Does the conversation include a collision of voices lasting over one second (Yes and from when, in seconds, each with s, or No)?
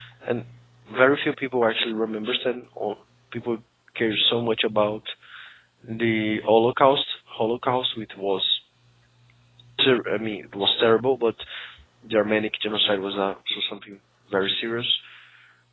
No